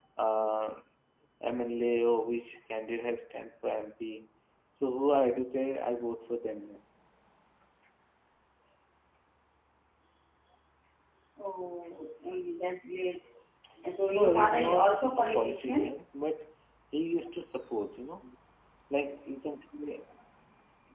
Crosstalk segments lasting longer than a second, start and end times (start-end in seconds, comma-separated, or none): 14.1-16.0